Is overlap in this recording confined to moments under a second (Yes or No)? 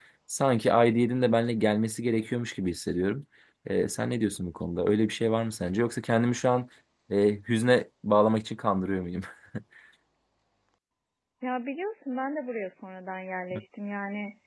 Yes